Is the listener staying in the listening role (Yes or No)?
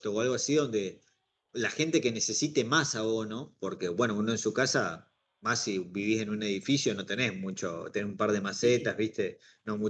Yes